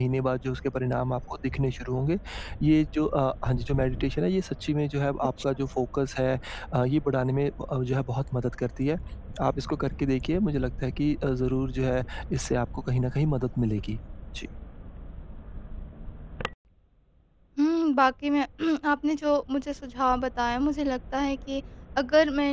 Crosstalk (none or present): none